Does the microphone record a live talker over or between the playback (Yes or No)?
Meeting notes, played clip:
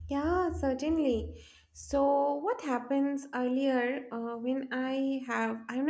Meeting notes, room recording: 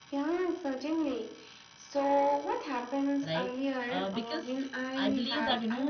Yes